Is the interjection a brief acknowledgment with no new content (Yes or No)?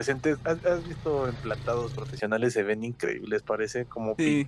No